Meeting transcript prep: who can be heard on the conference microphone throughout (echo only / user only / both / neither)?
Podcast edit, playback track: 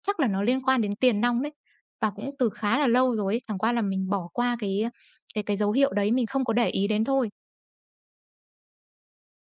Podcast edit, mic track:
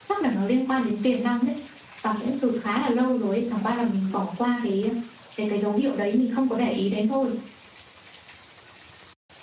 echo only